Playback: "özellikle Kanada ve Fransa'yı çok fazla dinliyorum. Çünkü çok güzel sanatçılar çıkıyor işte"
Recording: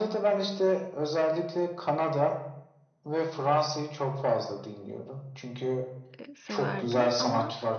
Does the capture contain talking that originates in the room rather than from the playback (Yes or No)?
Yes